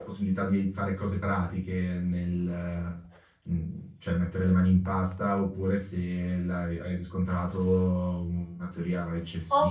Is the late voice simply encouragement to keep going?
No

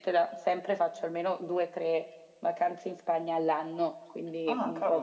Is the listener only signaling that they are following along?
Yes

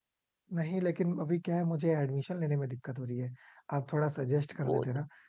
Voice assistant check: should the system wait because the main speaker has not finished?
Yes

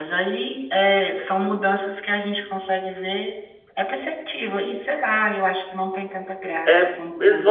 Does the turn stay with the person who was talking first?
No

